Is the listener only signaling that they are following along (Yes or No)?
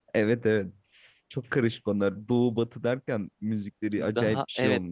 No